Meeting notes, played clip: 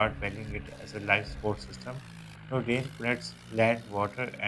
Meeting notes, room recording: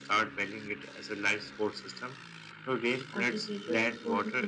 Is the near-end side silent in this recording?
No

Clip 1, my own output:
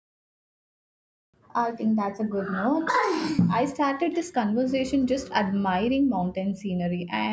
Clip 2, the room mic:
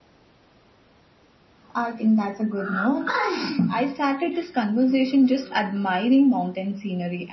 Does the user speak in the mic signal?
No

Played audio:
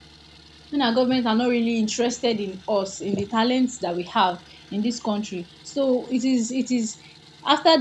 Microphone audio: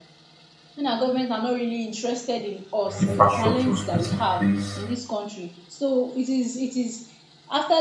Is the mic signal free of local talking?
No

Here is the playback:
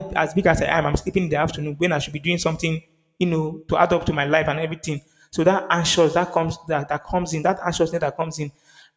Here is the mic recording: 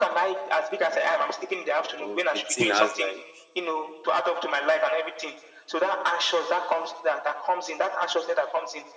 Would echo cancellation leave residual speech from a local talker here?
Yes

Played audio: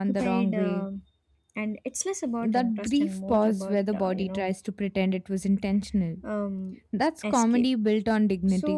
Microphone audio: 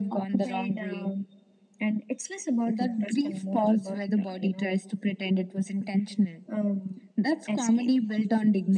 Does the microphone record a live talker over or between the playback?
No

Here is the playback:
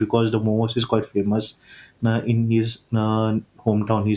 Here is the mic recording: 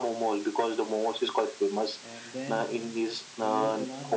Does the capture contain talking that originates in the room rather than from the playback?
Yes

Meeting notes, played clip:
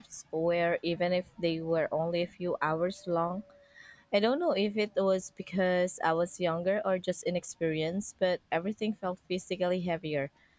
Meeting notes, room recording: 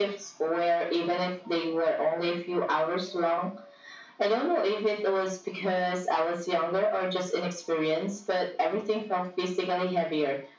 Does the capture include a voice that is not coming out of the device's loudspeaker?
No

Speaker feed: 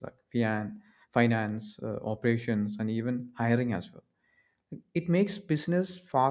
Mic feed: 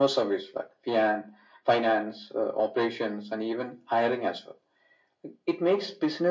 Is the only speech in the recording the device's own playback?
Yes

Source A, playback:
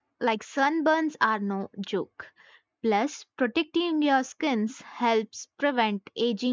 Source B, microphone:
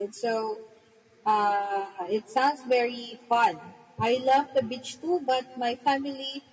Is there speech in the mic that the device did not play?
Yes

